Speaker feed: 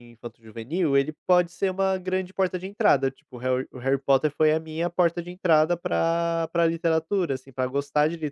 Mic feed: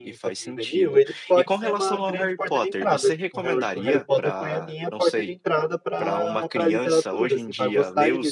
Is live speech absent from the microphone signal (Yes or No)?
No